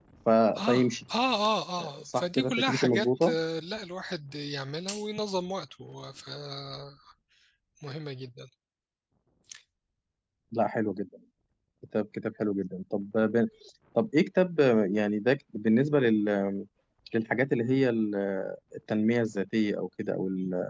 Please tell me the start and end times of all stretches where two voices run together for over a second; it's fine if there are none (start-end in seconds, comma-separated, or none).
2.0-3.3